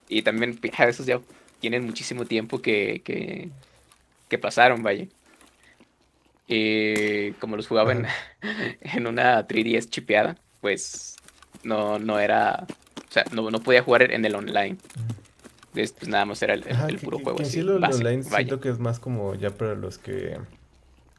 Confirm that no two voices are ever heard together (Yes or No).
No